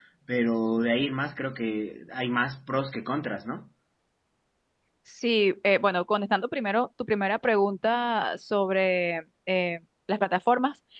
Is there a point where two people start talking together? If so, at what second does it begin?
none

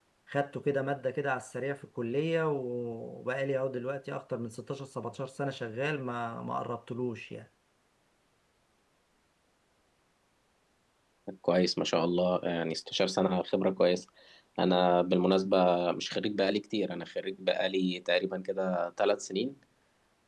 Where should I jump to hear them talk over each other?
none

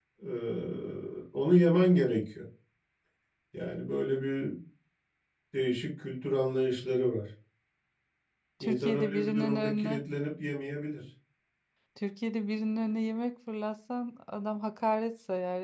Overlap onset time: 9 s

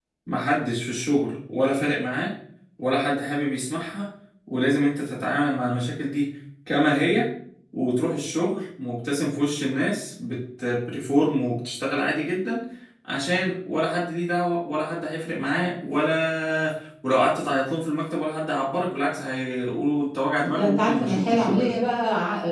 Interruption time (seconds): 20 s

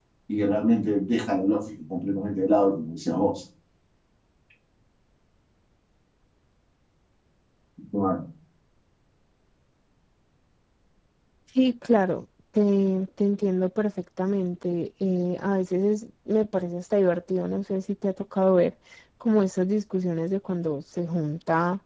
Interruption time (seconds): none

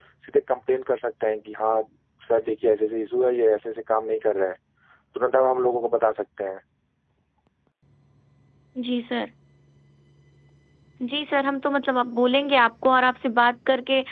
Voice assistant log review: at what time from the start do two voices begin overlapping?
none

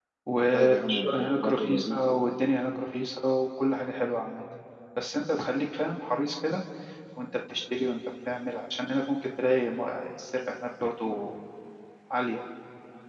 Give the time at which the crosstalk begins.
1 s

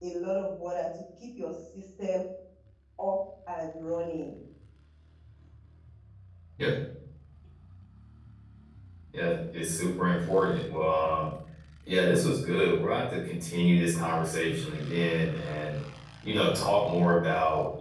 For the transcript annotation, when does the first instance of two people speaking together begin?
none

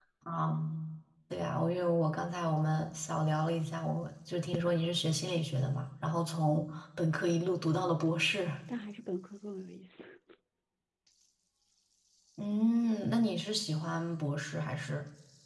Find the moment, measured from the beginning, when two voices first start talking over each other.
none

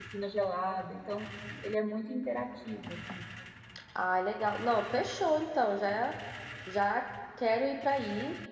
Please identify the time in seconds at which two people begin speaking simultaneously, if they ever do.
none

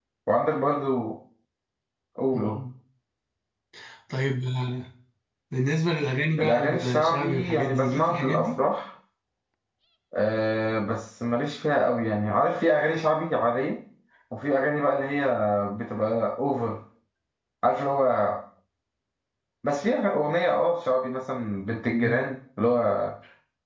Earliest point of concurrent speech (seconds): 6 s

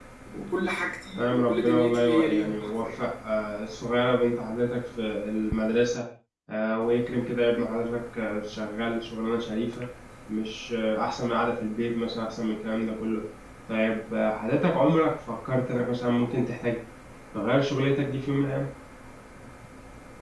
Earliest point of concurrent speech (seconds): 1 s

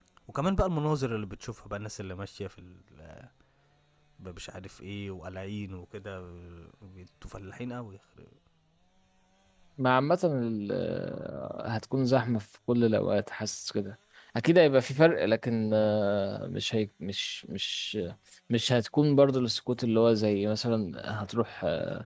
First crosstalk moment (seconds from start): none

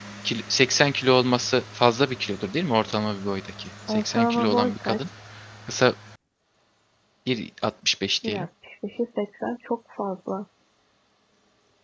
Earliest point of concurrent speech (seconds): 4 s

